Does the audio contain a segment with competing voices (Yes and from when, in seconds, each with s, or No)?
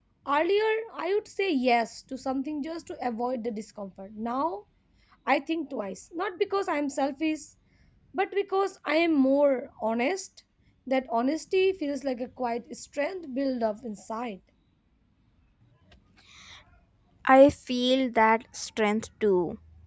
No